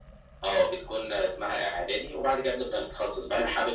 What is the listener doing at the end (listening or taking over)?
listening